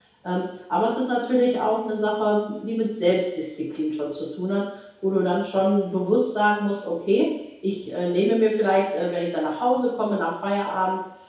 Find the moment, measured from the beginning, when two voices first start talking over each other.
none

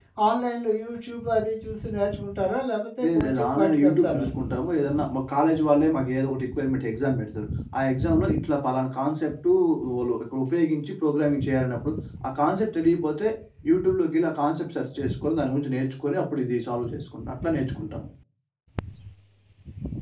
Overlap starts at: 3 s

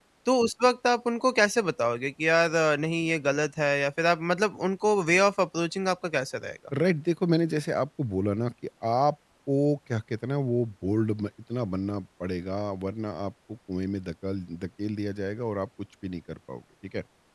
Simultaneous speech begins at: none

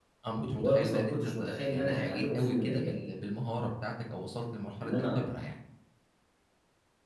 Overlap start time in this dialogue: 1 s

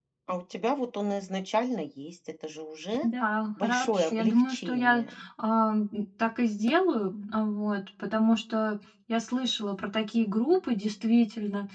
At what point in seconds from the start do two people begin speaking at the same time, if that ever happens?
4 s

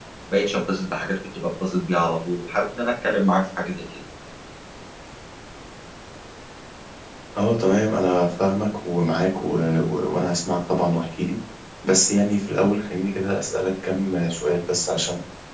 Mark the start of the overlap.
none

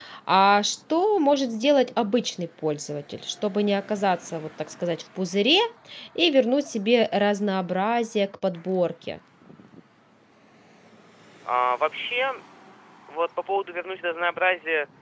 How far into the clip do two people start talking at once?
none

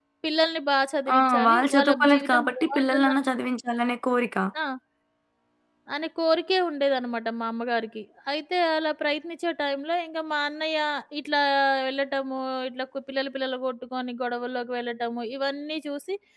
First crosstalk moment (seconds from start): 1 s

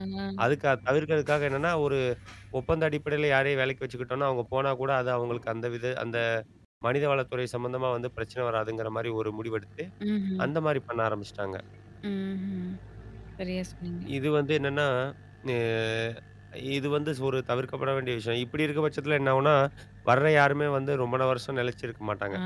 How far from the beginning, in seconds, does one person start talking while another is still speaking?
none

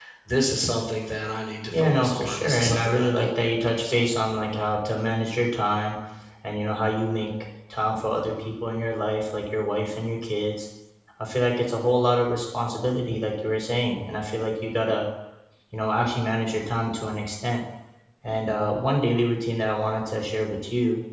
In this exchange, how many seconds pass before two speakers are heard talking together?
2 s

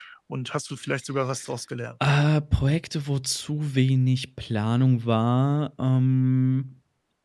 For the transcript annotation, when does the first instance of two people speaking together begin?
none

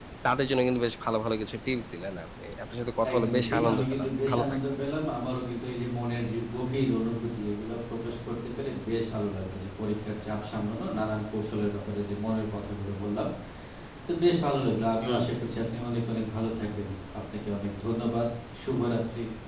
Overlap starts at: 3 s

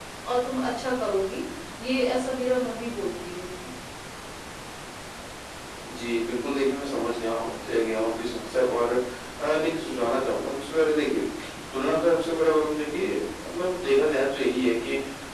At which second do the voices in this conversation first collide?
none

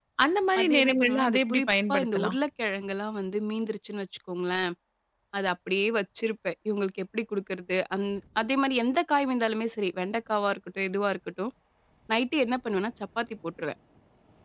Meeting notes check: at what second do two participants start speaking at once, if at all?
1 s

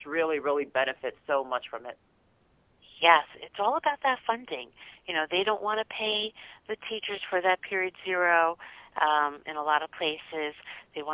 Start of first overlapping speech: none

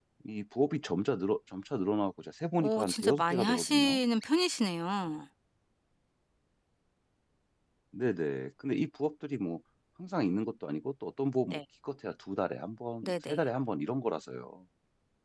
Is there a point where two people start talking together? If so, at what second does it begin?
3 s

